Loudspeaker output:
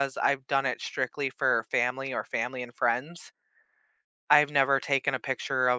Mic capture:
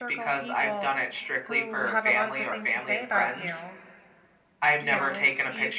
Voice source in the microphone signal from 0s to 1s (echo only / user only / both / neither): both